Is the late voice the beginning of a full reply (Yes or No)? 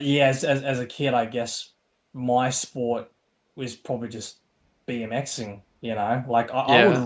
Yes